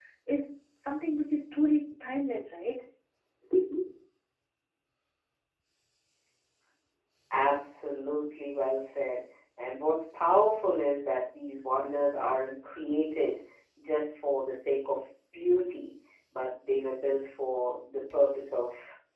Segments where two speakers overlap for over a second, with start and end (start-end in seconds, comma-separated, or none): none